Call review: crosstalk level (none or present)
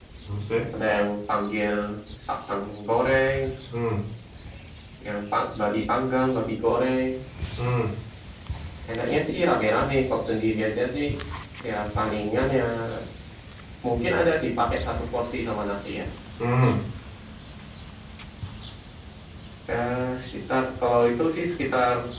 none